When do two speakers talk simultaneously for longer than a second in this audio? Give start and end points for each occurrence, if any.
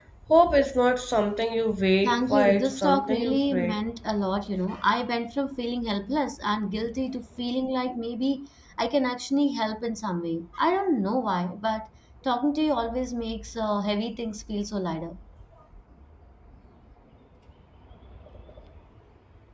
2.0-3.8

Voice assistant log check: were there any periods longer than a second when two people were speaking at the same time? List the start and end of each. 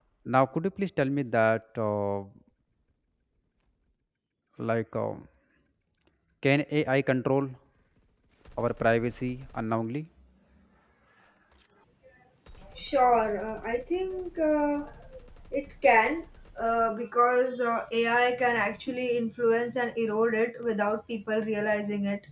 none

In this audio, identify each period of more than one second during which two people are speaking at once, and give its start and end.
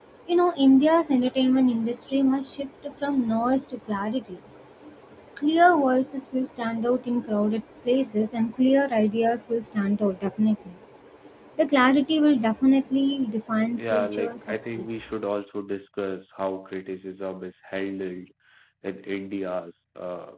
13.8-15.1

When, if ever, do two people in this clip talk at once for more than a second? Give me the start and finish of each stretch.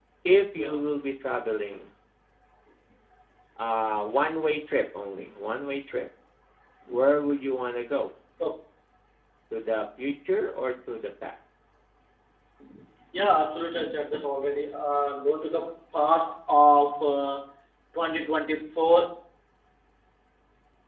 none

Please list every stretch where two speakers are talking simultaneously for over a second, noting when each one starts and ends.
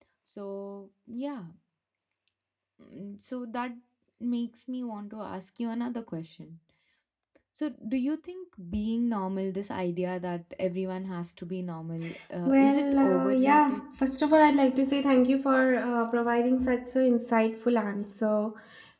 12.4-13.8

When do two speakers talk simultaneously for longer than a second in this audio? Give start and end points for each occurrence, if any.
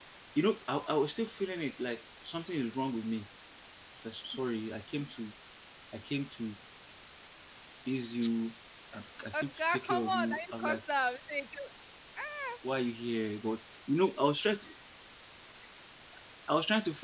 9.3-10.8

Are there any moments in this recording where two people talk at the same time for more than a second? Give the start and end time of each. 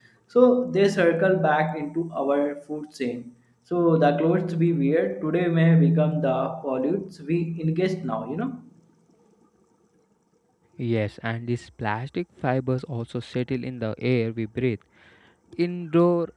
none

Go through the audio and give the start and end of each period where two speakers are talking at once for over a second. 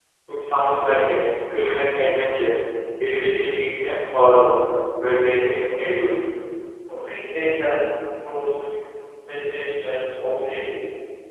none

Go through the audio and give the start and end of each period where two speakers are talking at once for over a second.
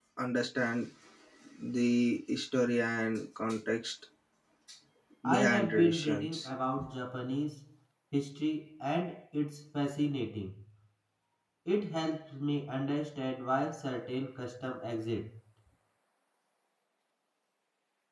5.3-6.5

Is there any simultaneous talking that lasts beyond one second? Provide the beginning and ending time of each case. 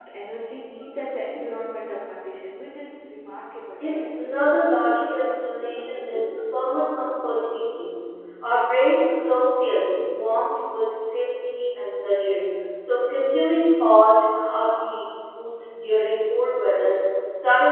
none

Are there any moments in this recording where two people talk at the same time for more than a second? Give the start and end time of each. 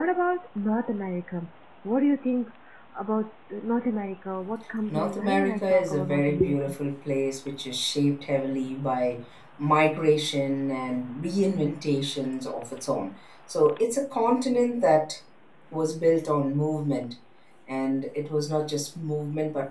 4.9-6.8

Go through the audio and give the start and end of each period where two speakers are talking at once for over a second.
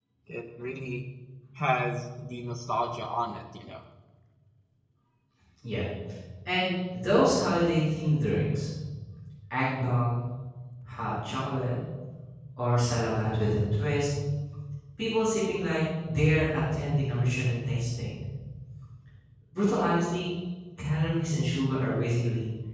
none

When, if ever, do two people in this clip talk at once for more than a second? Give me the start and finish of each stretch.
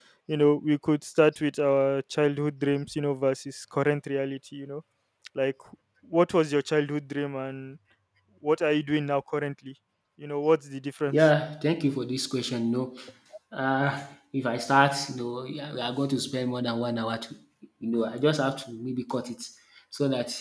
none

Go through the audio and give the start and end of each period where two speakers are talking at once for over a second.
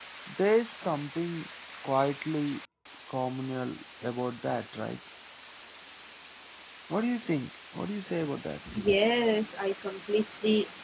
none

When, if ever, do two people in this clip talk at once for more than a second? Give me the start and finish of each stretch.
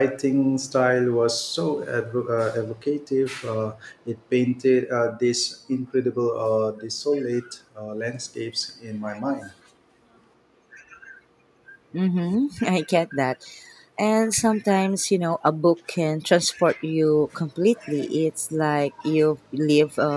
none

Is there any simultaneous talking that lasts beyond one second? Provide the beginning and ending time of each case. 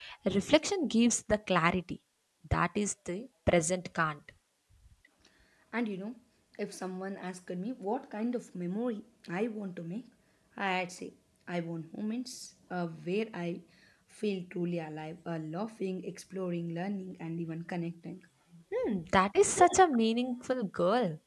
none

